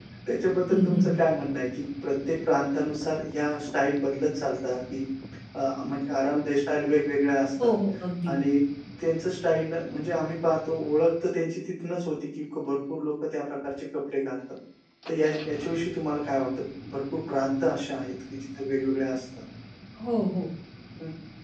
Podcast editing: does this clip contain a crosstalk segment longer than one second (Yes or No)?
No